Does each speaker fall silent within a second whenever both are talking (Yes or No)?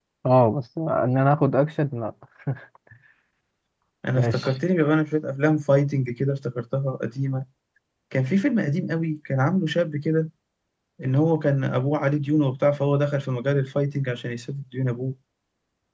Yes